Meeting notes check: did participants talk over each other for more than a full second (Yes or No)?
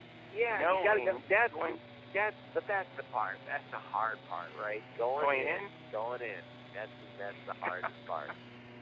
Yes